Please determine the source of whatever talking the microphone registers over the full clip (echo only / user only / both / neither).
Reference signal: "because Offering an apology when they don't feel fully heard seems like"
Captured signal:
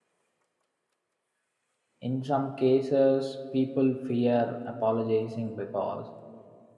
user only